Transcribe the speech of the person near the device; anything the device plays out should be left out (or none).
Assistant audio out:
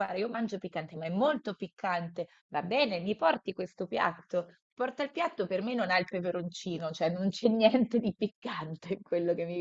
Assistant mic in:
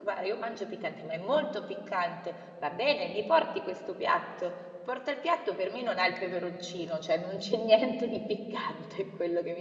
none